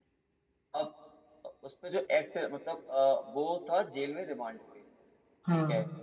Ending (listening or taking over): listening